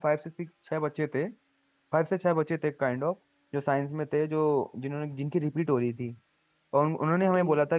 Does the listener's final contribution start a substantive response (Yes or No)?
No